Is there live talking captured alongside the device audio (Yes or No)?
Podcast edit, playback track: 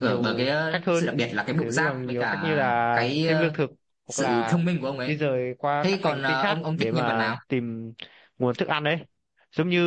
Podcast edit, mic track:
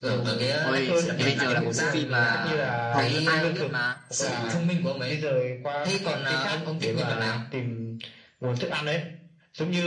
Yes